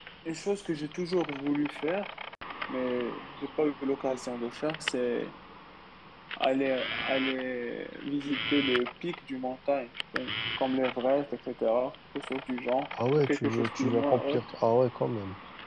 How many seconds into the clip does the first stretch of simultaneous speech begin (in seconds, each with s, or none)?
12.9 s